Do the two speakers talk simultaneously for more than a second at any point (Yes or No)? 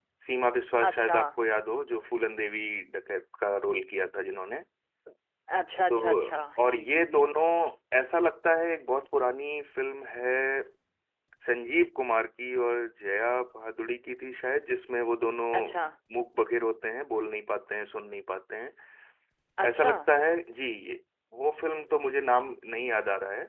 Yes